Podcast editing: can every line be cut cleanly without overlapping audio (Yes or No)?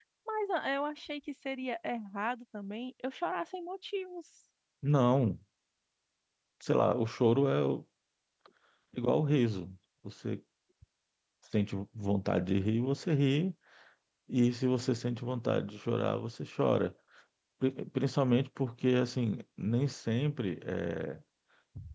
Yes